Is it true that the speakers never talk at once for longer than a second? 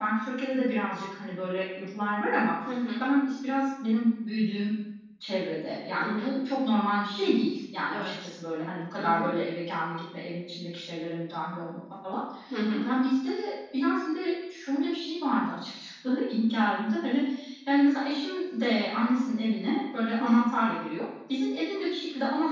Yes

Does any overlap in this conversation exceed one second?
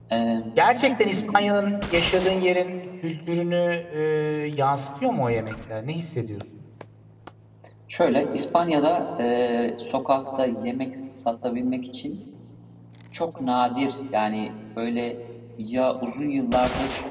No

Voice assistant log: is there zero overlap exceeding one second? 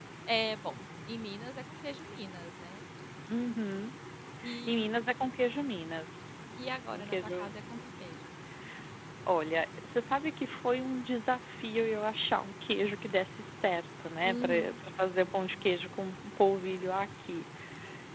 Yes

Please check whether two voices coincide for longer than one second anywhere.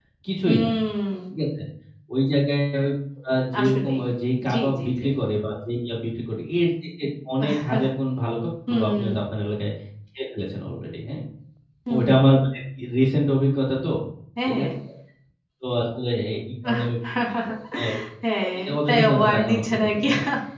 Yes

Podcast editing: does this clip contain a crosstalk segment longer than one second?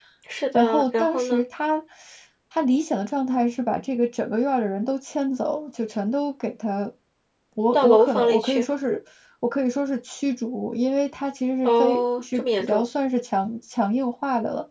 Yes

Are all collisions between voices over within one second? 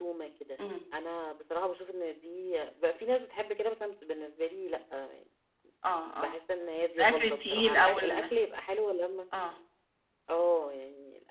No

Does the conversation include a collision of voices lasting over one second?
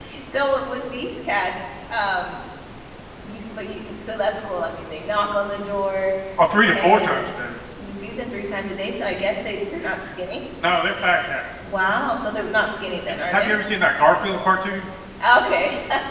No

